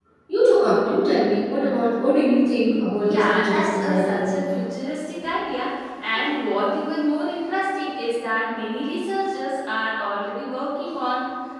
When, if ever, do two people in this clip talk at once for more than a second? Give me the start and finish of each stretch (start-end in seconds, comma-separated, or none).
3.0-4.3